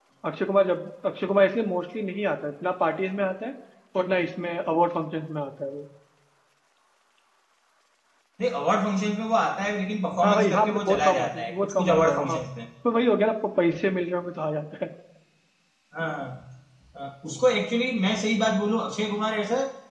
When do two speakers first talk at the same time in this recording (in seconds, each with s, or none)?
10.2 s